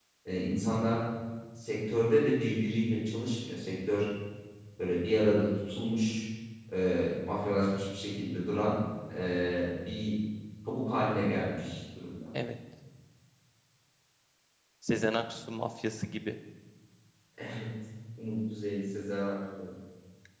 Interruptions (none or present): none